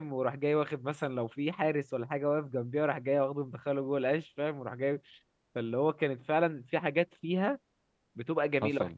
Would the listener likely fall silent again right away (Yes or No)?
Yes